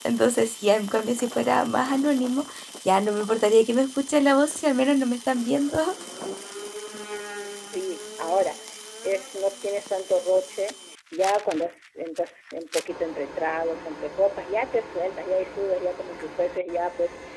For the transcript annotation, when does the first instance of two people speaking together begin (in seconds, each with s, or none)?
none